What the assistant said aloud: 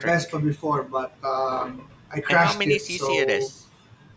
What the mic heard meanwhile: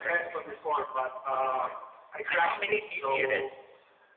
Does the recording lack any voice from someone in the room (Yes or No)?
Yes